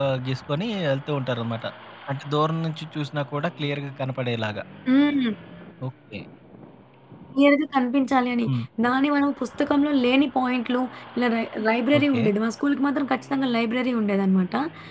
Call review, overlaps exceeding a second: none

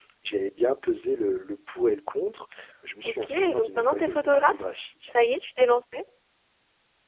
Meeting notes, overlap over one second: present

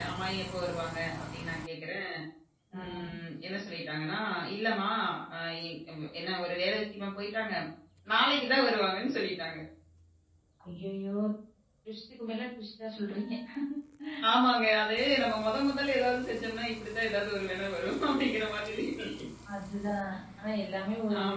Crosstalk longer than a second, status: none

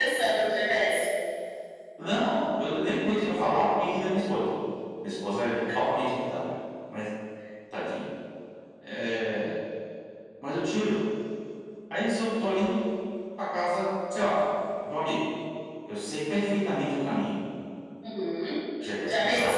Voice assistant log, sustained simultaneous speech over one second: none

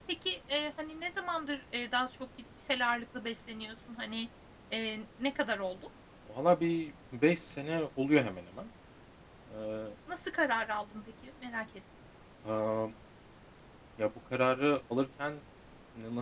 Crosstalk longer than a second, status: none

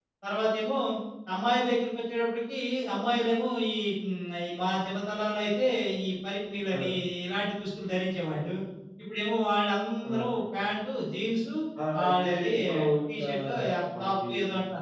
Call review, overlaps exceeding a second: present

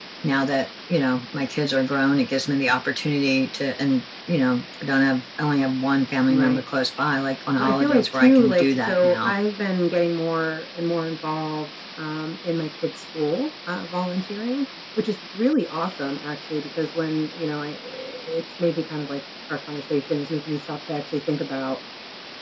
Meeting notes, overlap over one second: present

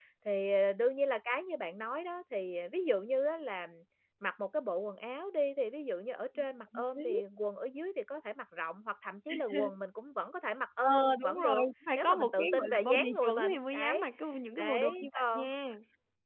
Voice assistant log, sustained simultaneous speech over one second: present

